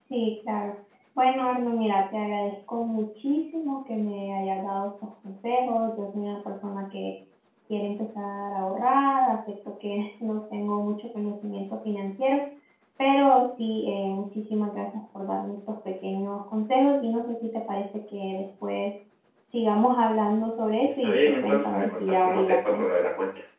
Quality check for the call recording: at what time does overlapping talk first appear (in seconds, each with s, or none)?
20.8 s